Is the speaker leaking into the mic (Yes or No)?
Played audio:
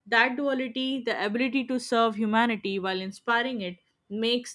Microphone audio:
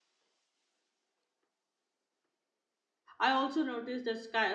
No